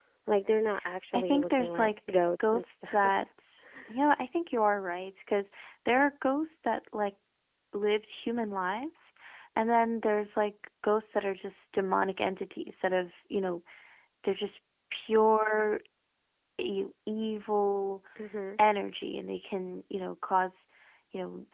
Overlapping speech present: Yes, from 1.1 s

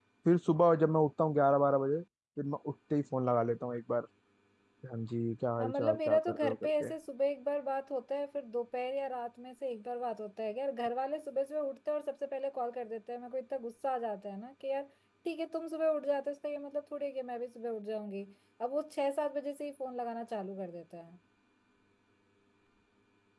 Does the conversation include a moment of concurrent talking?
Yes, from 5.6 s

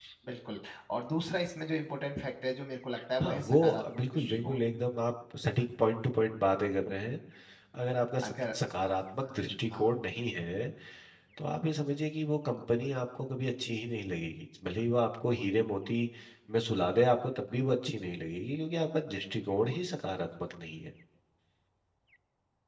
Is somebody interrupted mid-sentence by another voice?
Yes, from 3.2 s

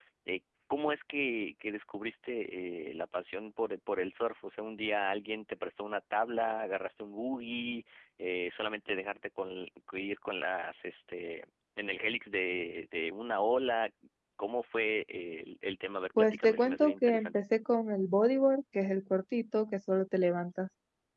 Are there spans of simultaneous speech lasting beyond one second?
Yes, from 16.2 s

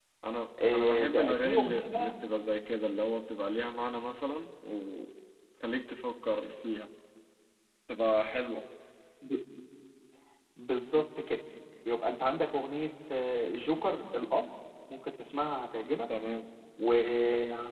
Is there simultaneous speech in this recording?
Yes, from 0.7 s

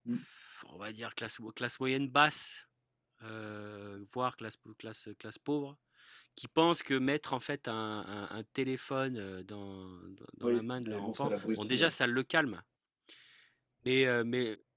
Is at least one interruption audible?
Yes, from 10.4 s

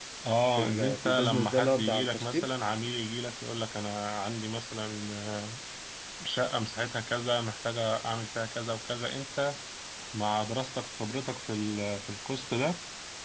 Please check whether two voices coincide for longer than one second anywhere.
Yes, from 0.6 s

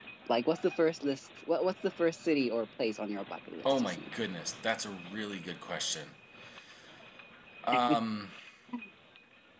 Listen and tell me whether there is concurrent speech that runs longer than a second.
No

